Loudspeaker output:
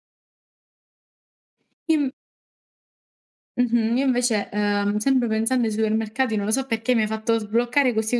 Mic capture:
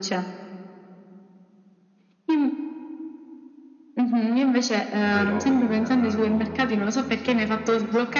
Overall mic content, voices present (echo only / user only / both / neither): both